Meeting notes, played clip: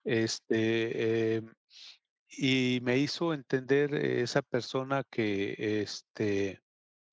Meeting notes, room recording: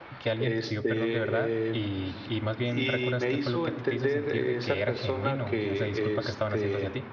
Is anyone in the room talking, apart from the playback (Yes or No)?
Yes